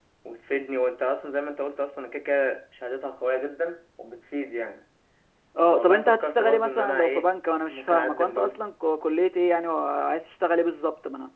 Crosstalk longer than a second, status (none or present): present